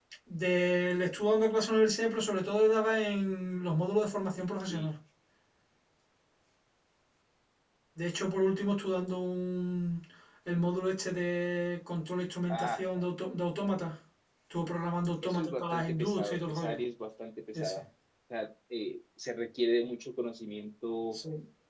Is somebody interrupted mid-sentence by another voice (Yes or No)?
Yes